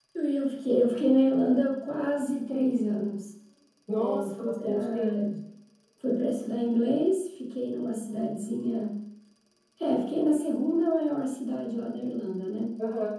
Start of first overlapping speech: 4.0 s

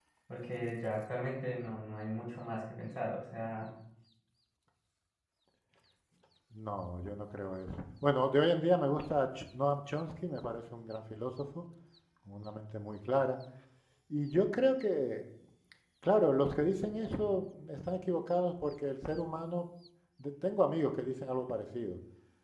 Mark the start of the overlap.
none

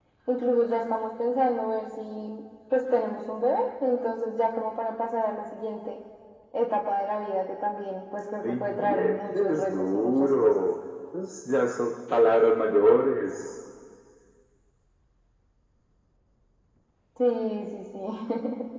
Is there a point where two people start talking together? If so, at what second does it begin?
8.4 s

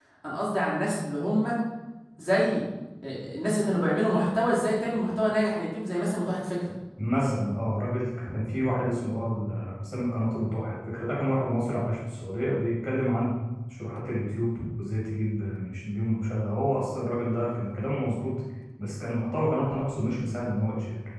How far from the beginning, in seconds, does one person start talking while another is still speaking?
none

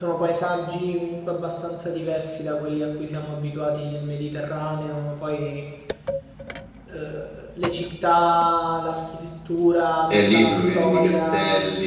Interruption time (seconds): 10.1 s

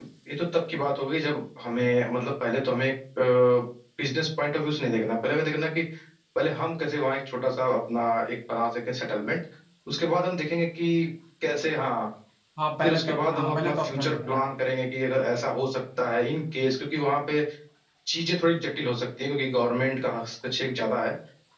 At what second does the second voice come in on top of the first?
12.8 s

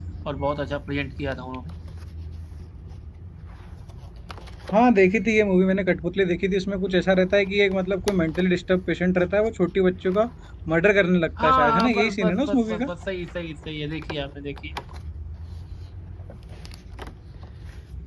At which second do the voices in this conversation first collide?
11.4 s

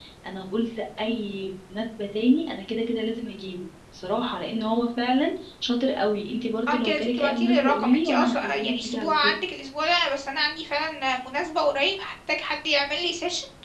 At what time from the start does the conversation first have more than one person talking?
6.7 s

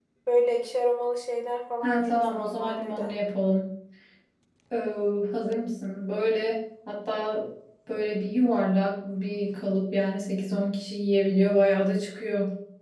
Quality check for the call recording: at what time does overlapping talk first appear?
1.8 s

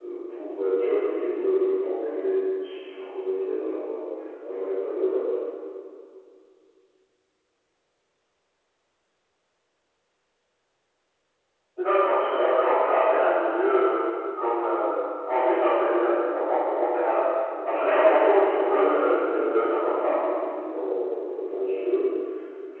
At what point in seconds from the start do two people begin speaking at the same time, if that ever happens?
17.7 s

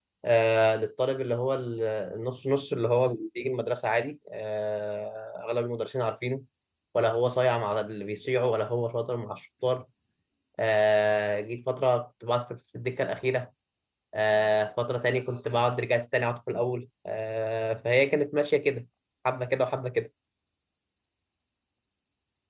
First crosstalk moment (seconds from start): none

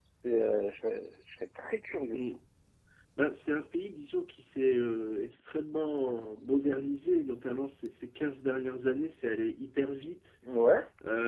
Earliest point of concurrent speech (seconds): none

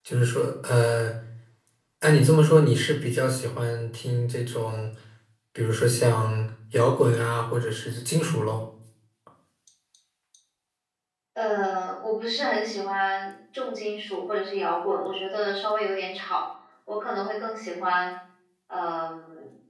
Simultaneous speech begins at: none

